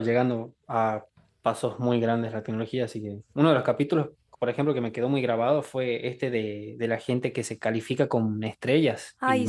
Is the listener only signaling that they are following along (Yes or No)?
Yes